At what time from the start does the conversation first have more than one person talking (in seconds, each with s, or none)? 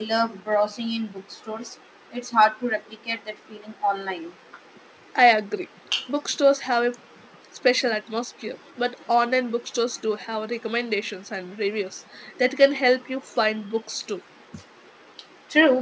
none